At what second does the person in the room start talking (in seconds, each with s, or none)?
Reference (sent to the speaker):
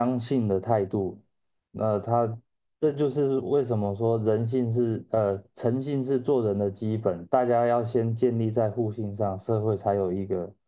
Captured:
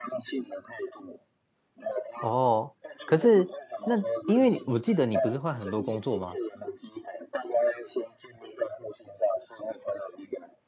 2.2 s